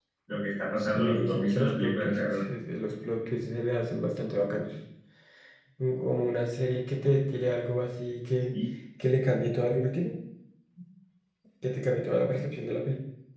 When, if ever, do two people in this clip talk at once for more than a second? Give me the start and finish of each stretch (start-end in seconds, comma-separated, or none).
0.9-2.4